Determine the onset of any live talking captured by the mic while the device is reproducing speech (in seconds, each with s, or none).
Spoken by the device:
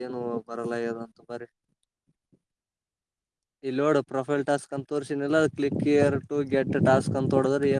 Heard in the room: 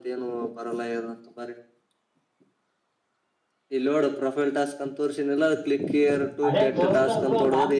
6.5 s